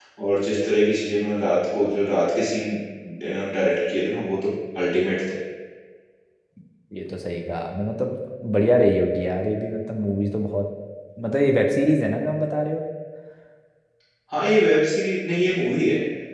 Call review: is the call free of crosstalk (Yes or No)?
Yes